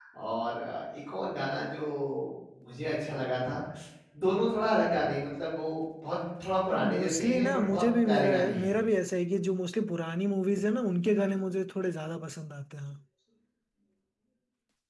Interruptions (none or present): present